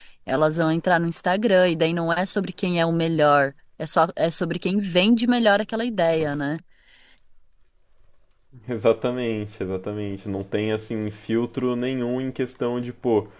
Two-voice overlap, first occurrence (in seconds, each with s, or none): none